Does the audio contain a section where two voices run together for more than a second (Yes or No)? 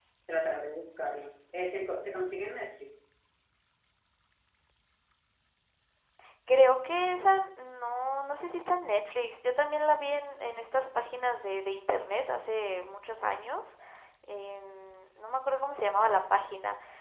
No